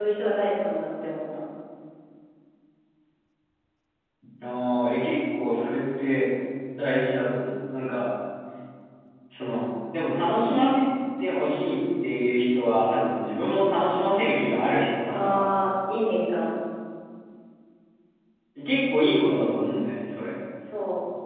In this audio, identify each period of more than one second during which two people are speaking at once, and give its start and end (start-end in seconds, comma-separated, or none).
none